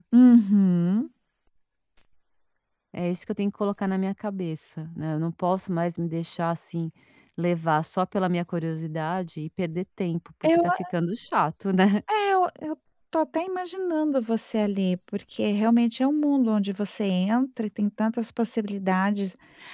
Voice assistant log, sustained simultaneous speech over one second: none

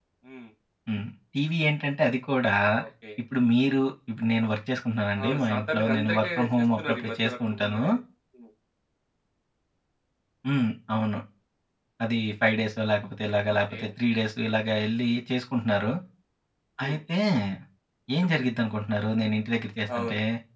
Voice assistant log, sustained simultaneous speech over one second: present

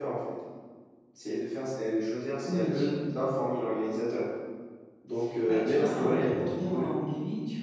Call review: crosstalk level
present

